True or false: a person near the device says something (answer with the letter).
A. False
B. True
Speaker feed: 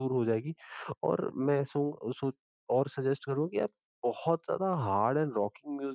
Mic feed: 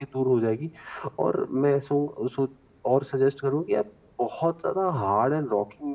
A